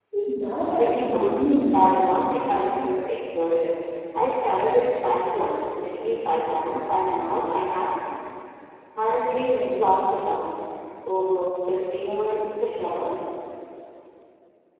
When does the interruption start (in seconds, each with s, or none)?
0.7 s